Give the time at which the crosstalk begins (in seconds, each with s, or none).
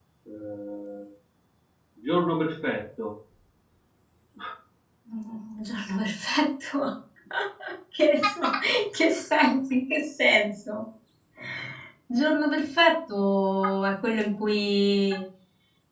none